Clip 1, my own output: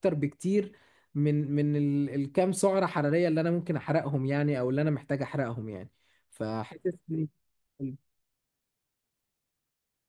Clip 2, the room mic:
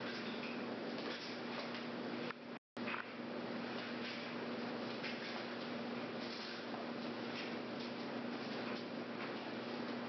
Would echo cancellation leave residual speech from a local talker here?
No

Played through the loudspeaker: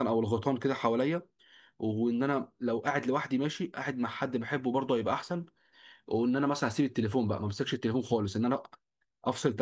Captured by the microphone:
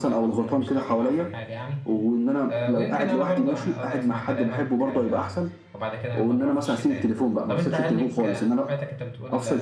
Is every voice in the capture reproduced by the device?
No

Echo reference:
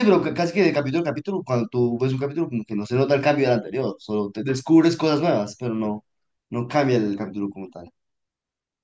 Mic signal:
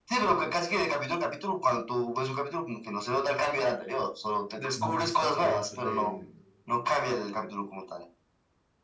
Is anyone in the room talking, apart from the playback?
Yes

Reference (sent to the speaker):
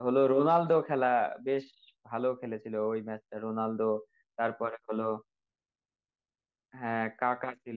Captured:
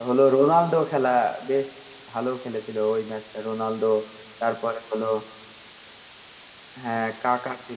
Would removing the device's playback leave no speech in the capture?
Yes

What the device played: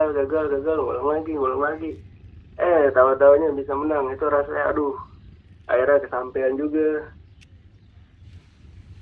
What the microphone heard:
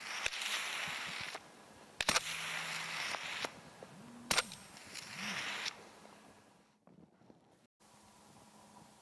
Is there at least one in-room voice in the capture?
No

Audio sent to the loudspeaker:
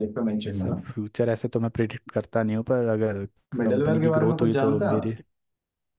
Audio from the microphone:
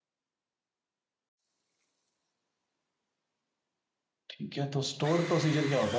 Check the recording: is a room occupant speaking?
Yes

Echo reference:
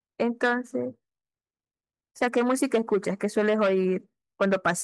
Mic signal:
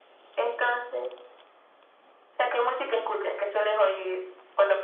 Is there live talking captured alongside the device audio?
No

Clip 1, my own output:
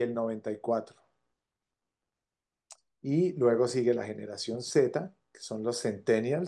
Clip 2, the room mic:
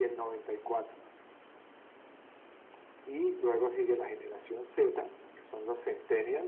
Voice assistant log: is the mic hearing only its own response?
Yes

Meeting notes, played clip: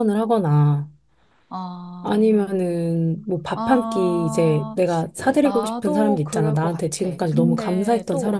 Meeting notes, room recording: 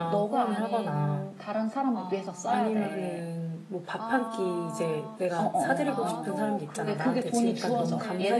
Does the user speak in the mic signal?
Yes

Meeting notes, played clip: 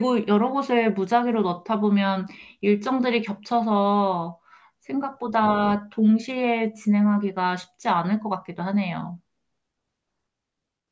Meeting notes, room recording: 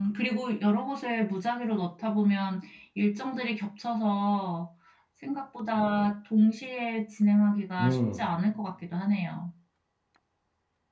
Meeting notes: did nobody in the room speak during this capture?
No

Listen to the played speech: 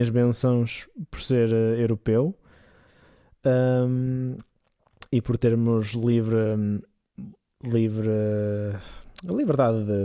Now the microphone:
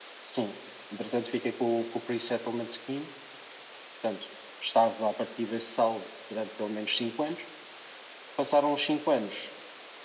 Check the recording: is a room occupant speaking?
Yes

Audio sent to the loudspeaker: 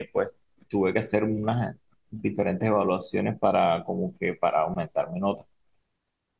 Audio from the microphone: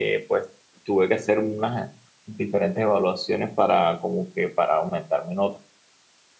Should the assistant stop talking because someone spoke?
No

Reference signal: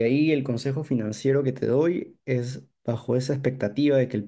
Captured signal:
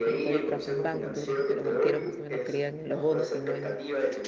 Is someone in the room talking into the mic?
Yes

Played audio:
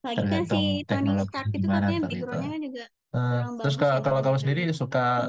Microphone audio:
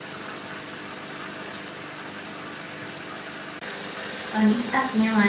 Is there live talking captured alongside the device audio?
Yes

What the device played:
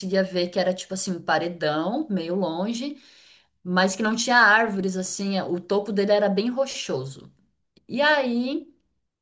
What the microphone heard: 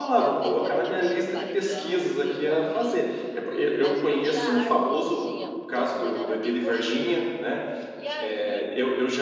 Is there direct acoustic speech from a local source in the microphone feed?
Yes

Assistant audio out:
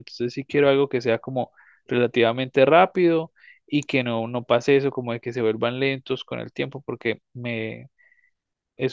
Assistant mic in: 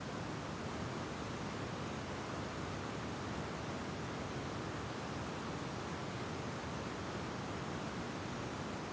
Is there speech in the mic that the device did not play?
No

